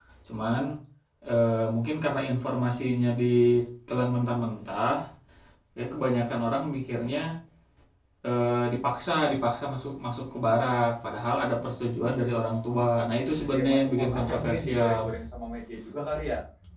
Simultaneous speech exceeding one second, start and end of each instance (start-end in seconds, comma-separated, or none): 13.3-15.0